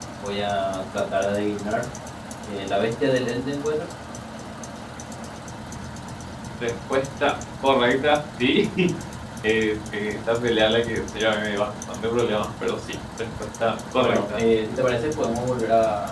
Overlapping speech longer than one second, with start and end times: none

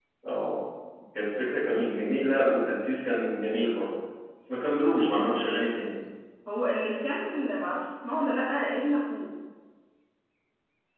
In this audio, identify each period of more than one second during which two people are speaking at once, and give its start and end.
none

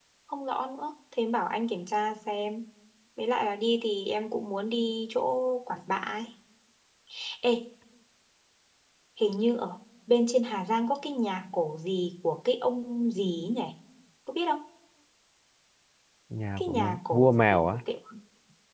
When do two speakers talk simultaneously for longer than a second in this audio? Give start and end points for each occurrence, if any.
16.6-17.8

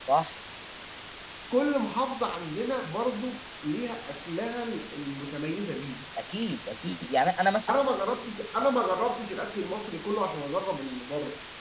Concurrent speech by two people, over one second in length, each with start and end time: none

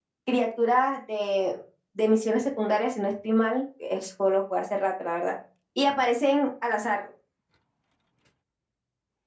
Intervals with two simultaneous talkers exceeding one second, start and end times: none

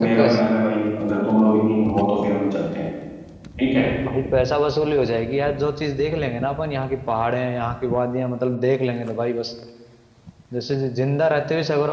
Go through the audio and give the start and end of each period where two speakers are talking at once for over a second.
none

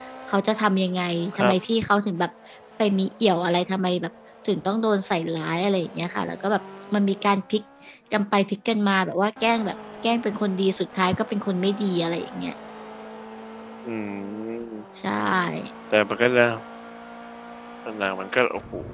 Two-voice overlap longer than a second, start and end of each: none

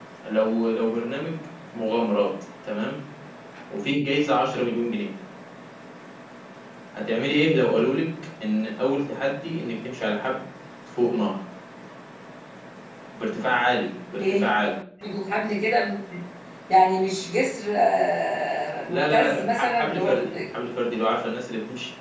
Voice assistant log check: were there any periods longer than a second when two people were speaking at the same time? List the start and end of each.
18.9-20.3

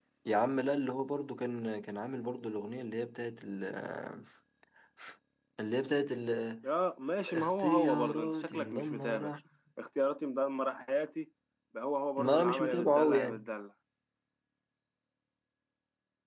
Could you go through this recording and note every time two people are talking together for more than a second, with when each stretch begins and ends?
7.3-9.3, 12.2-13.5

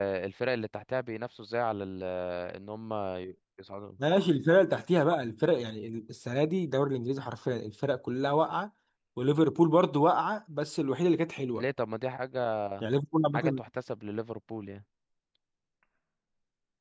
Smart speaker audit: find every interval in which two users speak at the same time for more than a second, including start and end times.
none

